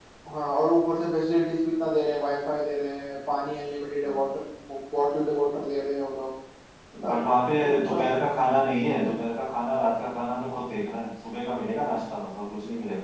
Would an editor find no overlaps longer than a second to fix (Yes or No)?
Yes